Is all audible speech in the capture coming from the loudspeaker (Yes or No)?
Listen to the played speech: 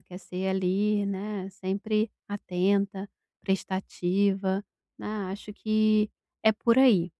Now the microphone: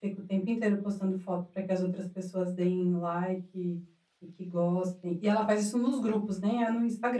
No